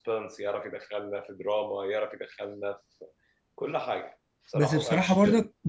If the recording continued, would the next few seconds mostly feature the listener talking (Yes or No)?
Yes